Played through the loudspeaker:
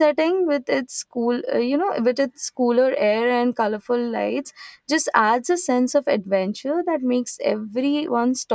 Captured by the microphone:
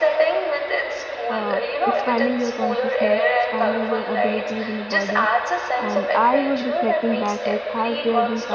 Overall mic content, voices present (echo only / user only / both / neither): both